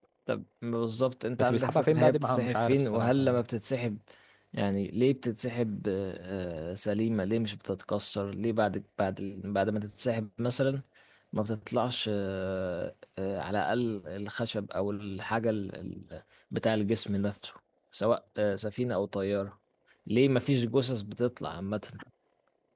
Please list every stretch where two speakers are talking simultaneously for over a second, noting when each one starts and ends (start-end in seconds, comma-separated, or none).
1.4-3.4